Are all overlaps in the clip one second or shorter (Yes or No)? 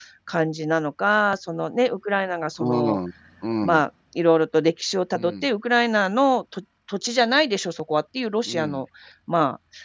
Yes